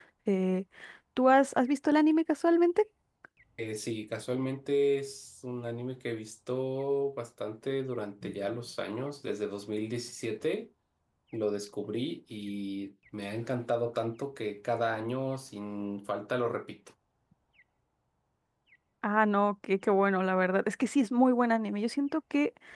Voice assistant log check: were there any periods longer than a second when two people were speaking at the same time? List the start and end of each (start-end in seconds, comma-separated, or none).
none